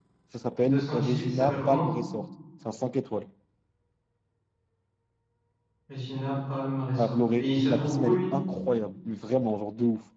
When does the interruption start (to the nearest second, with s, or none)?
1 s